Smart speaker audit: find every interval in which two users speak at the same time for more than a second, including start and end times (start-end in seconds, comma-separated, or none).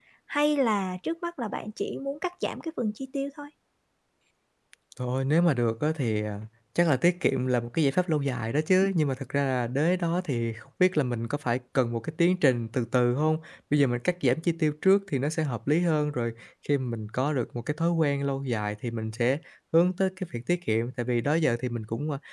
none